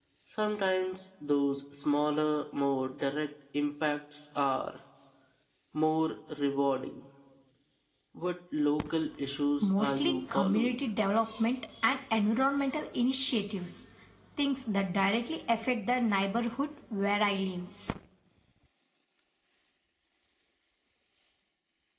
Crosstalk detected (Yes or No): Yes